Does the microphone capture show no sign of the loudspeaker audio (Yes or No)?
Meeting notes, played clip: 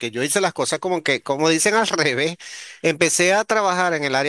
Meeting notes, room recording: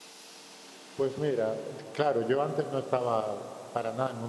Yes